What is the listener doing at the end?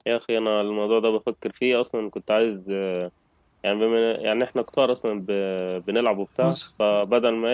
listening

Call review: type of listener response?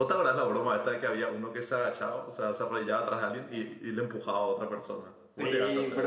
taking over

